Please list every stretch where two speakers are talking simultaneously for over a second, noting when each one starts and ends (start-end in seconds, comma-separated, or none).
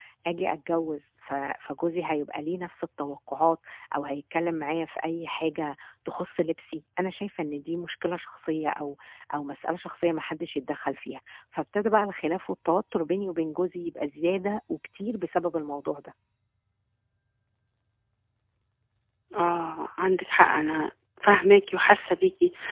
none